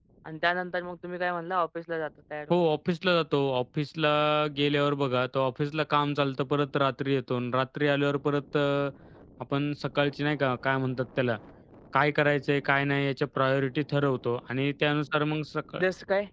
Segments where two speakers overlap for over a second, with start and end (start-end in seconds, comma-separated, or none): none